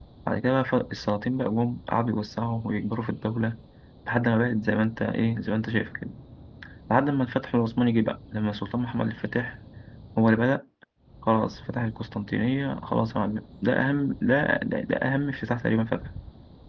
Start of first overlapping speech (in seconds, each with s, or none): none